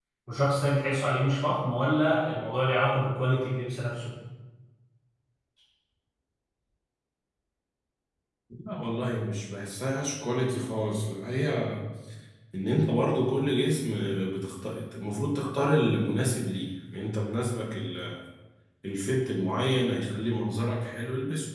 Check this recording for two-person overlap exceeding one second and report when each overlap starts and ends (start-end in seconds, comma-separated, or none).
none